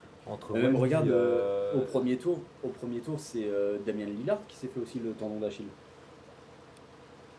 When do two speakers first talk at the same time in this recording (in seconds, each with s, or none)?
0.5 s